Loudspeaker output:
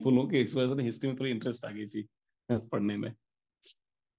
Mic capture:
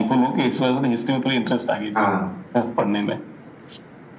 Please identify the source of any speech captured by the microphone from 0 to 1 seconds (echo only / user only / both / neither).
echo only